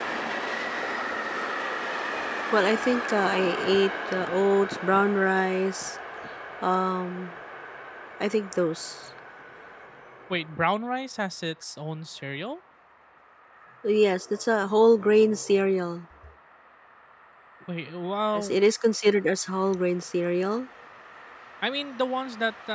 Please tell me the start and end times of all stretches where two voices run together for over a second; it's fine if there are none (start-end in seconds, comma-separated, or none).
none